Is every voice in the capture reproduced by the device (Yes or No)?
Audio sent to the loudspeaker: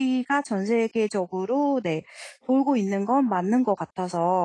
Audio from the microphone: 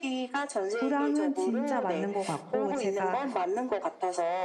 No